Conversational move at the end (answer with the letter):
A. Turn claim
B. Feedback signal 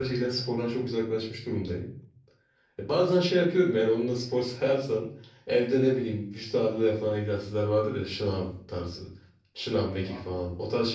B